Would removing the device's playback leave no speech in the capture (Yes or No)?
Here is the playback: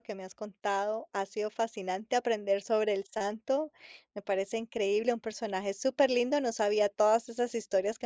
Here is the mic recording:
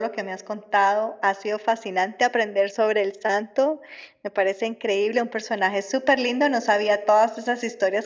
Yes